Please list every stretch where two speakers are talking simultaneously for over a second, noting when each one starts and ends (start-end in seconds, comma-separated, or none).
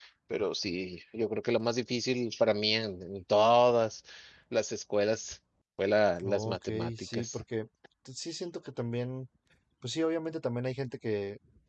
6.2-7.4